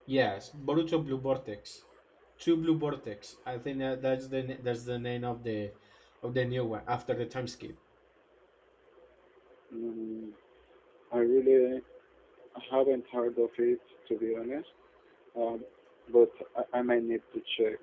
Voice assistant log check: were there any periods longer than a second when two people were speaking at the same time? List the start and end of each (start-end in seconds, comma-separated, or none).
none